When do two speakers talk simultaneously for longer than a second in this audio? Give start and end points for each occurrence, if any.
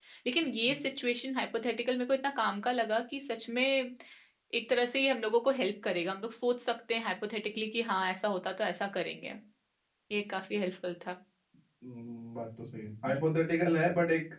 none

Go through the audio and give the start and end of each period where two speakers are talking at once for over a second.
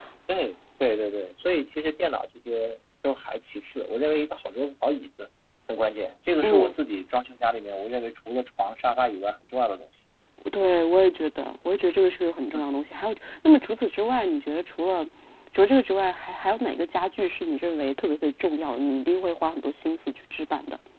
none

